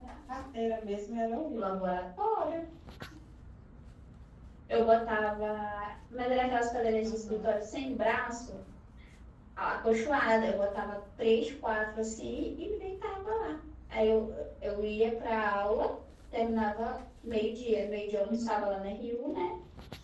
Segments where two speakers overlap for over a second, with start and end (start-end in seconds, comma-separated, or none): none